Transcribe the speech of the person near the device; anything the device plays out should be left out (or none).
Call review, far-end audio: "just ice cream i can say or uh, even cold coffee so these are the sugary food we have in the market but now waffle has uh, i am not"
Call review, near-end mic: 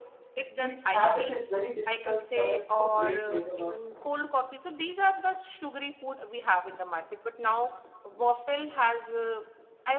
this habit is very difficult for us to break later on